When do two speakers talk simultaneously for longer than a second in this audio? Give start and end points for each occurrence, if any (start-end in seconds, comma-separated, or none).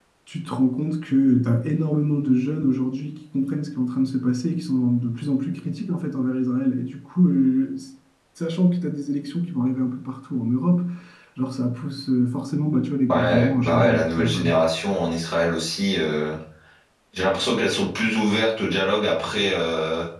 13.1-14.5